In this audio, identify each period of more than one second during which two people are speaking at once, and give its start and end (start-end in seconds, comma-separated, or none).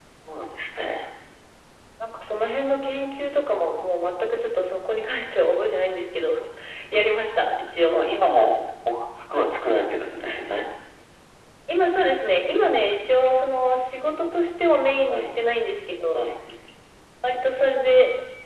none